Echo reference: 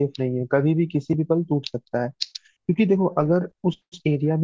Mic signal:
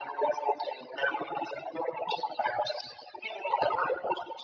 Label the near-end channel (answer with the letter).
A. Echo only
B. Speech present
A